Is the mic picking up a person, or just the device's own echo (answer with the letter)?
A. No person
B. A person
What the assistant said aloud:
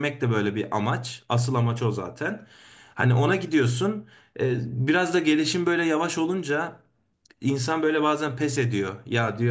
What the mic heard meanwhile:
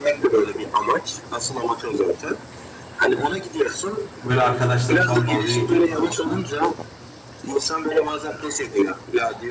B